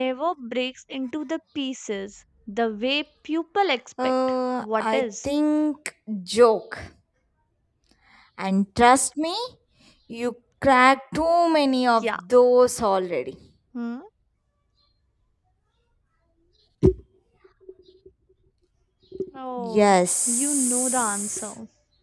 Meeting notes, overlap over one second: present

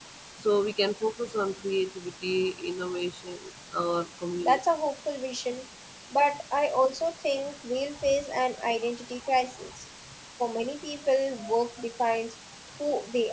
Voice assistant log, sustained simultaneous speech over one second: none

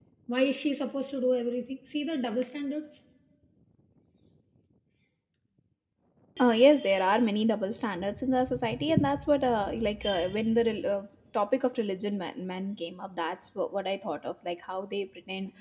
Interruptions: none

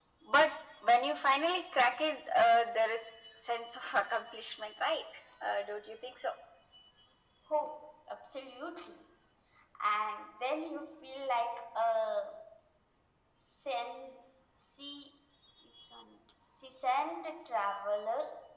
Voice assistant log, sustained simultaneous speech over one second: none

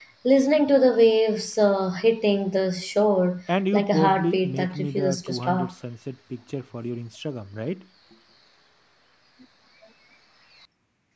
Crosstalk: present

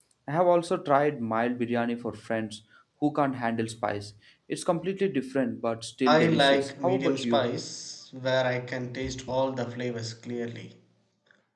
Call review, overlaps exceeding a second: present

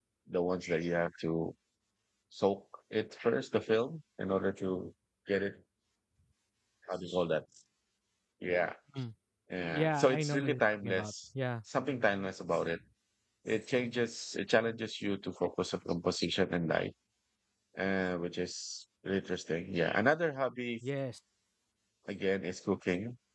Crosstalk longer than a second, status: present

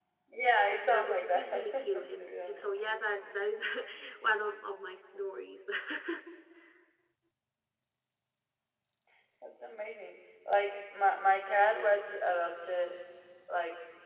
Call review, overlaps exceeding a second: present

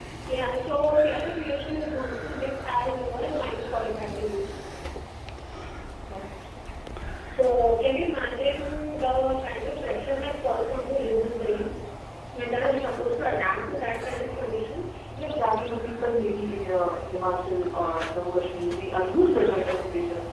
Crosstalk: none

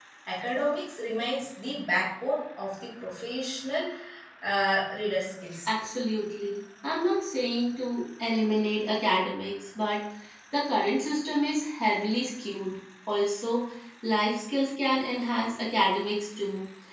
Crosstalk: none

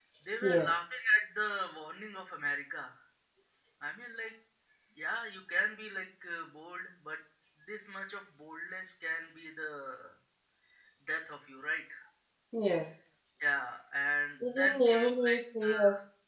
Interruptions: present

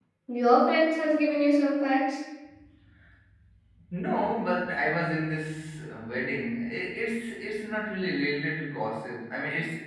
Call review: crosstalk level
none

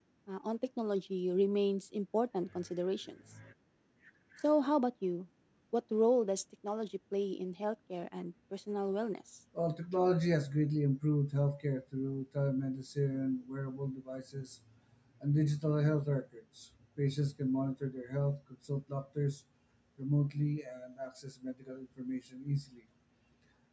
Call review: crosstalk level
none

